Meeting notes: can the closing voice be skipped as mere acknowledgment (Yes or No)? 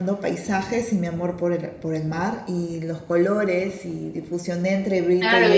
No